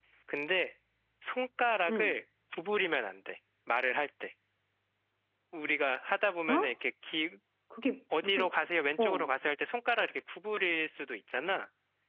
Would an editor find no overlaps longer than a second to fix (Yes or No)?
Yes